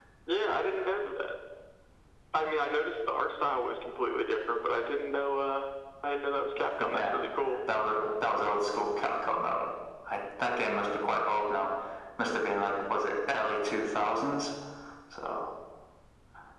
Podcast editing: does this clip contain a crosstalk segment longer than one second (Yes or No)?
No